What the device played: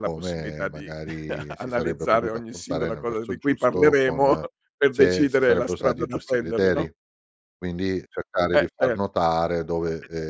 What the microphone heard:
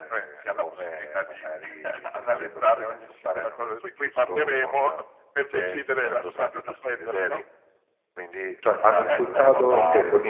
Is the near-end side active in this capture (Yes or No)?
Yes